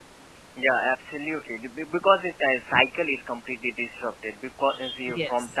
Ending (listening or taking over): listening